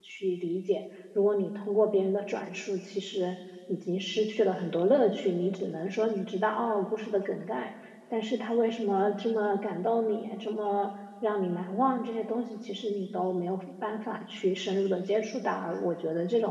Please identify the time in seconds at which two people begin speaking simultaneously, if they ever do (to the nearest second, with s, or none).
none